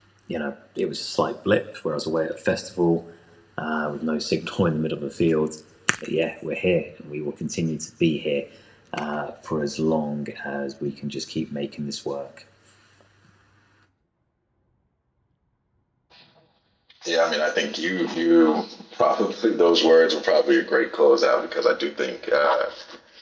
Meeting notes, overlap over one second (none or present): none